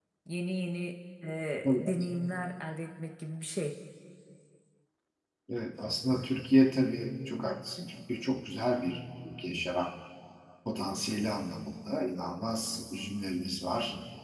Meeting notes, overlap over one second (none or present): none